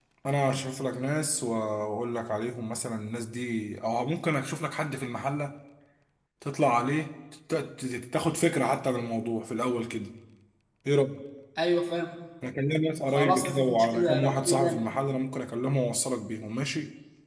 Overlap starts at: 13.1 s

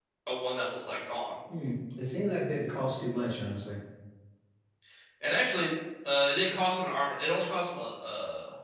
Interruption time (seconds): none

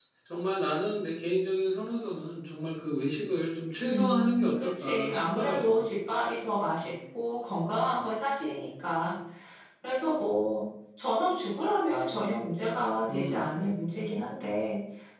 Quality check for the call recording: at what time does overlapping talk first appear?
3.9 s

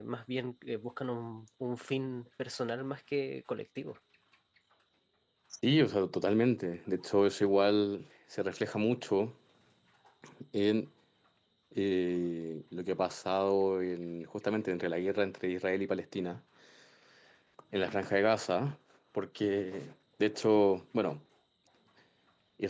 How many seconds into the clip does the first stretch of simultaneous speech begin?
none

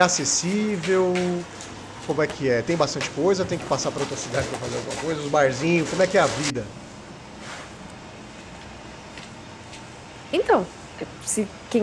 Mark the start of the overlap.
none

